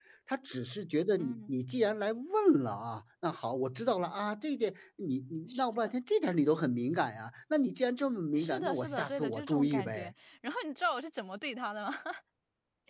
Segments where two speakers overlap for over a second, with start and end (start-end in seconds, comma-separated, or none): 8.4-10.1